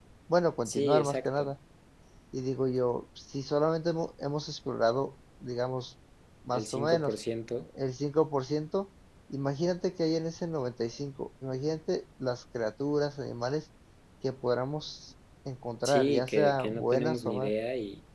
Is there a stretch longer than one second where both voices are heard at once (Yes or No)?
Yes